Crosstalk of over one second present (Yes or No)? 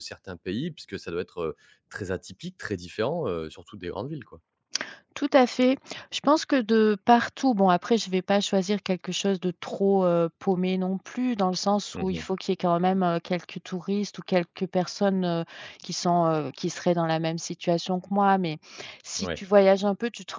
No